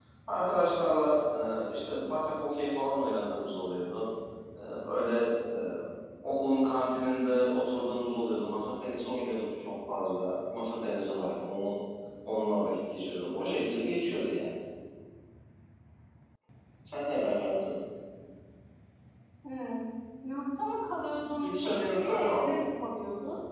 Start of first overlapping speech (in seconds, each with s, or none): 21.4 s